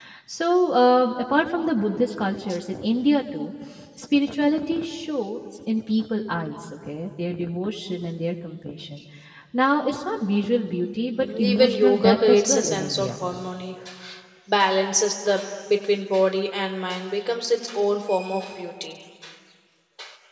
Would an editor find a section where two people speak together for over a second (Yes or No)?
Yes